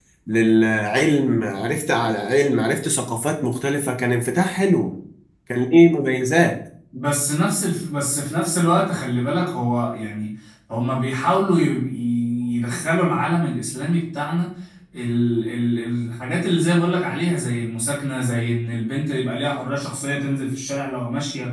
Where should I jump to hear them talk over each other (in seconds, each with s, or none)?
none